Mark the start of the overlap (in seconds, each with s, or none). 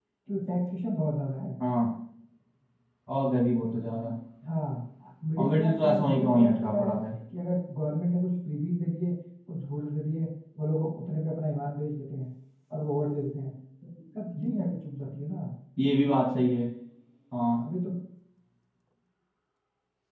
5.4 s